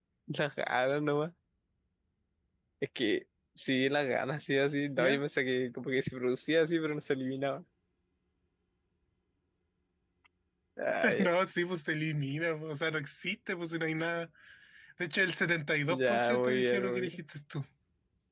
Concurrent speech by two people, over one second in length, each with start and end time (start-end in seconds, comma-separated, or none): 15.9-17.2